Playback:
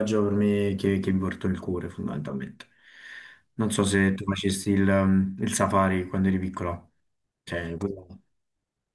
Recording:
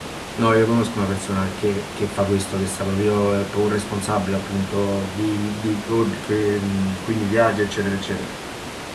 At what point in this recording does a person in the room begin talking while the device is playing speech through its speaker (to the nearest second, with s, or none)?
0 s